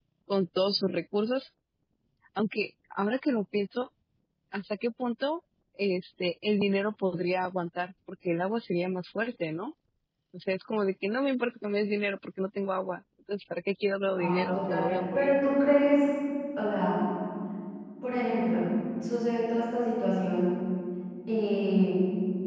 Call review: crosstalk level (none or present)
present